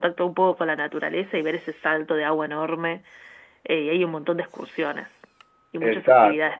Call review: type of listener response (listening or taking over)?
taking over